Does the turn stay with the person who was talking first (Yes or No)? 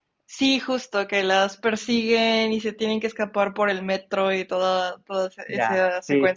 No